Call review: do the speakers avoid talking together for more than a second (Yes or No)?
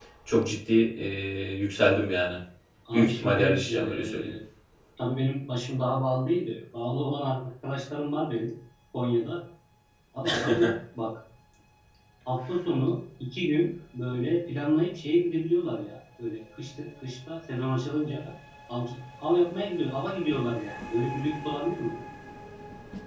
No